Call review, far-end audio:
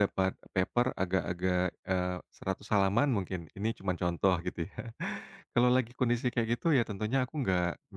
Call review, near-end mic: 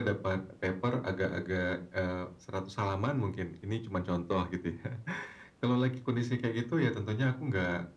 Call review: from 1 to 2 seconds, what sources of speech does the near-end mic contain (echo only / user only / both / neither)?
echo only